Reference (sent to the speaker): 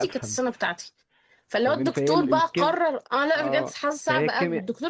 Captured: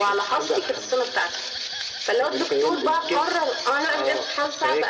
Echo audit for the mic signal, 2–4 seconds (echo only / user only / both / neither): echo only